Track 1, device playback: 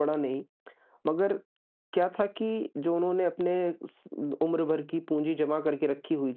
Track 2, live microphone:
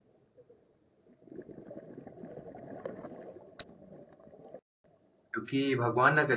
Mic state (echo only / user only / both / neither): user only